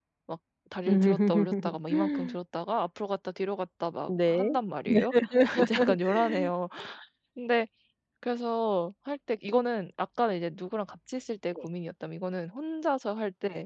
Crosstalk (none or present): present